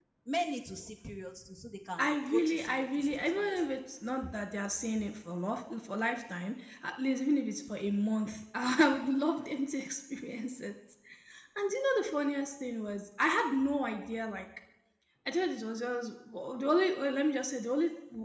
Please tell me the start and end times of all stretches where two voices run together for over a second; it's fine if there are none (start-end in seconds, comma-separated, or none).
2.0-3.6